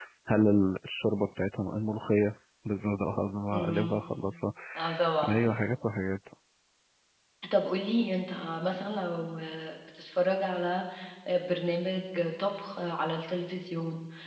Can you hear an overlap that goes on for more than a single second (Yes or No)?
No